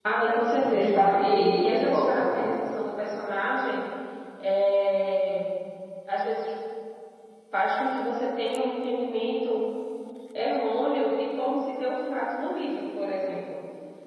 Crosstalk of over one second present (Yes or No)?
Yes